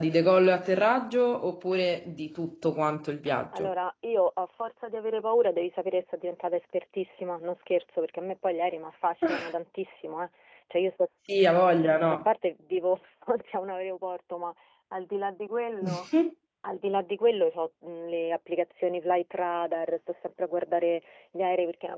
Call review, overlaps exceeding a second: none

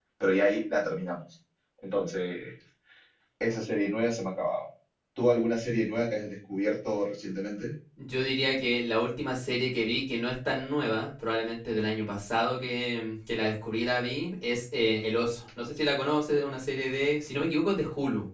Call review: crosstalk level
none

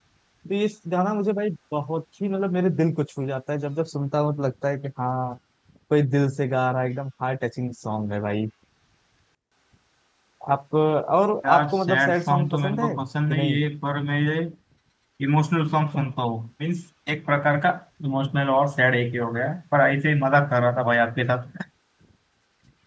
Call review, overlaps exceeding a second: present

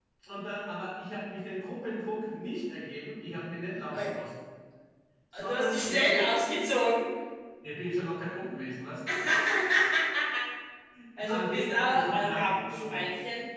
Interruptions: present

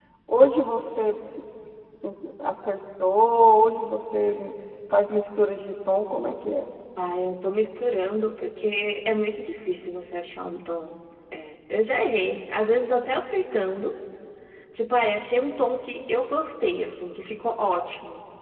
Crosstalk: none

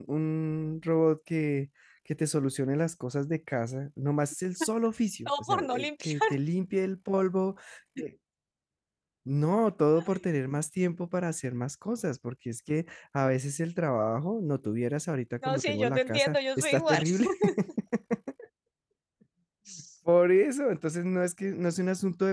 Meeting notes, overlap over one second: present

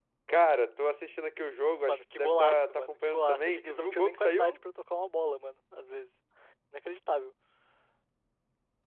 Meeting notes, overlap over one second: present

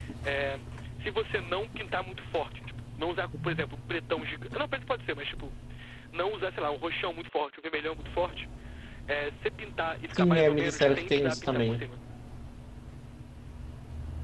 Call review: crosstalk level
present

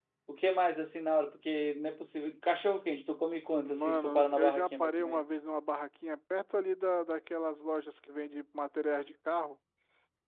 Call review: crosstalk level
present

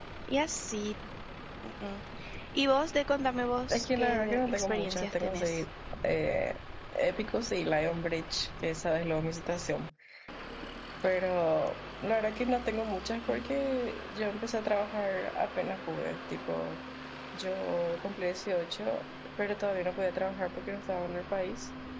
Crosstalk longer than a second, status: present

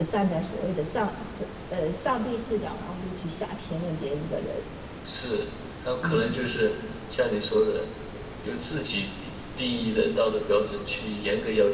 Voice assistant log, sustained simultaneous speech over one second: none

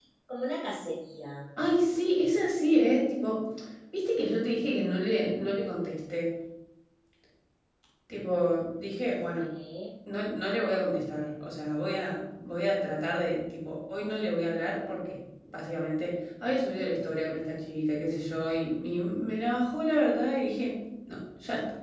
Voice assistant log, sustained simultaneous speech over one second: none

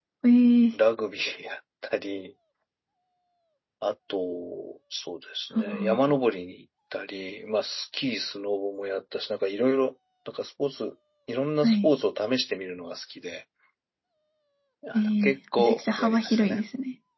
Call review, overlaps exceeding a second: present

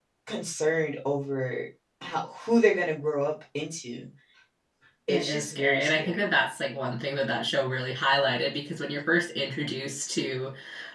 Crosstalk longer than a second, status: present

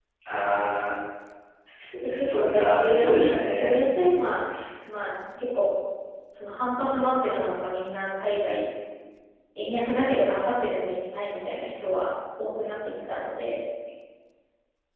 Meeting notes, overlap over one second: present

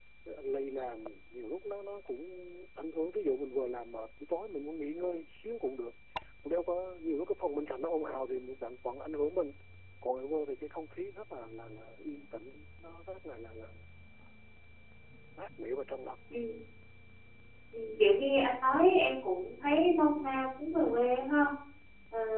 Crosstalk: none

